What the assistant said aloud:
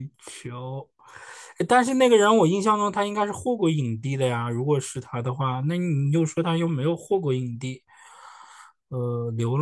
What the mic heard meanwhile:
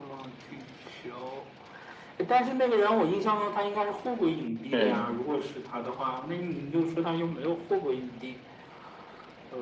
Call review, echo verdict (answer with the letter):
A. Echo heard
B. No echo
A